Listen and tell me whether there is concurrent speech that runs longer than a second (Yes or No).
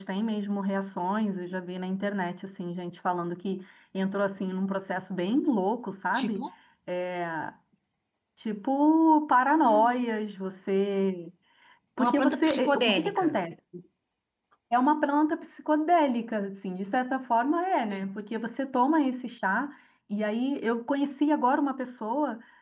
Yes